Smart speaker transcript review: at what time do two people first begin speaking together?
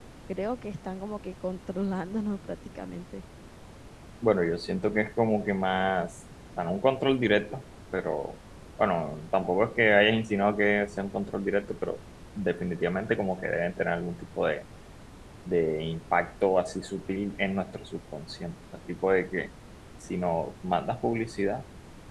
none

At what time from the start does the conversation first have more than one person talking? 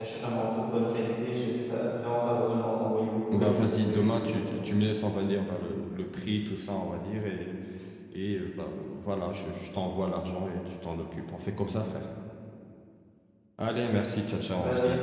3.3 s

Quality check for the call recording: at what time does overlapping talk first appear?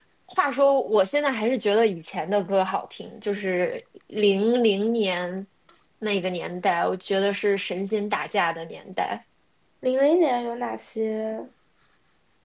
none

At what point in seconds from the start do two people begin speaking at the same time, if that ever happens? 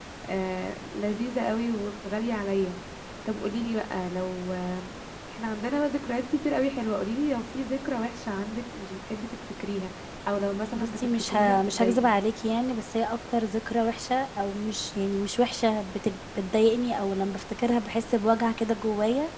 10.8 s

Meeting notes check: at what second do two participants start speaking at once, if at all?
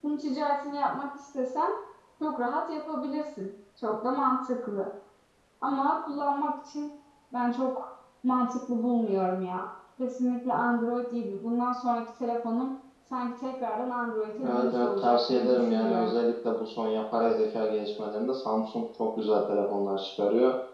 14.4 s

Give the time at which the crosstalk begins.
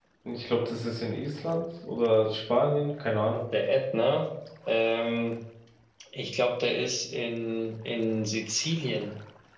none

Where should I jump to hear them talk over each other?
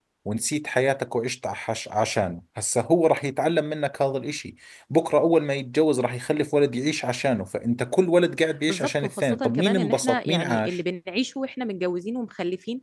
8.7 s

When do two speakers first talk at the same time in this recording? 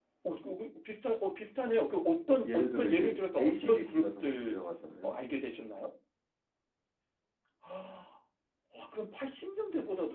2.5 s

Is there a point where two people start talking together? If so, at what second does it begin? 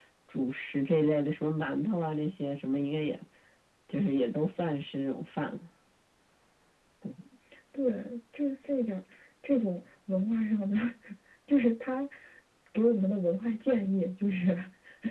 none

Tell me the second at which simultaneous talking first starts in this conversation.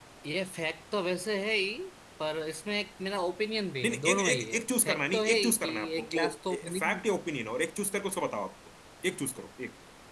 3.8 s

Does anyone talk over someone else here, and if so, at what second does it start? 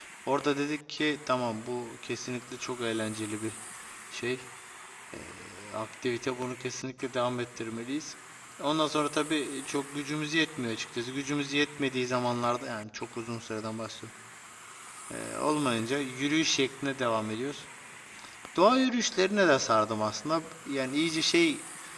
none

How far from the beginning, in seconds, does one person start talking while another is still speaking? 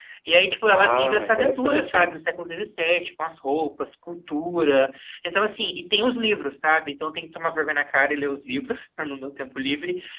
0.6 s

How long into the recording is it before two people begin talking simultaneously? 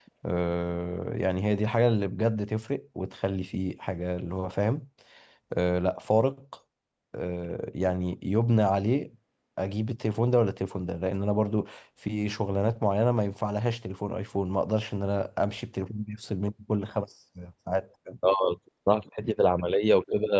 none

